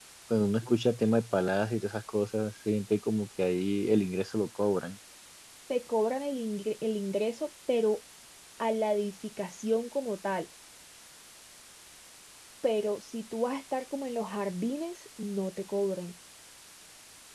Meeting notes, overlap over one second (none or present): none